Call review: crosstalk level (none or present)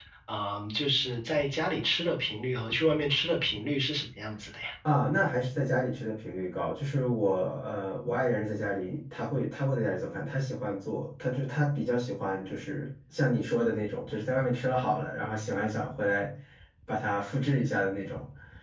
none